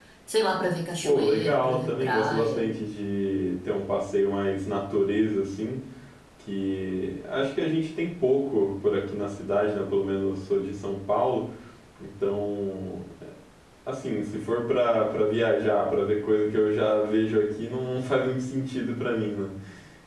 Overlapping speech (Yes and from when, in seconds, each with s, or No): Yes, from 1.0 s